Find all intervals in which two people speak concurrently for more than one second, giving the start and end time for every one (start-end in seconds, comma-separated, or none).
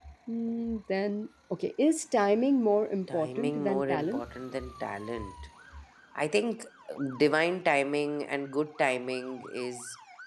3.1-4.4